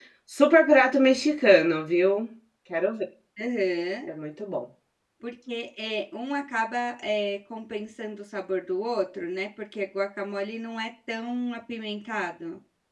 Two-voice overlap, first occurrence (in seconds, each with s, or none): none